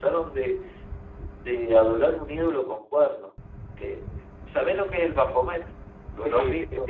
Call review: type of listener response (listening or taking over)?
taking over